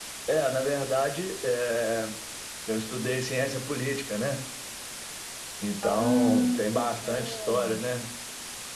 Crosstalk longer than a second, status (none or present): present